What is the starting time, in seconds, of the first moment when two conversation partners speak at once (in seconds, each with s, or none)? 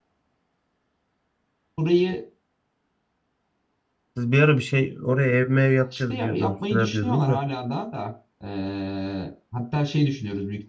5.9 s